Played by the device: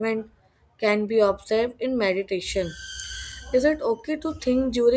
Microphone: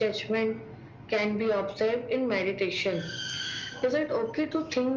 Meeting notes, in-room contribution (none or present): none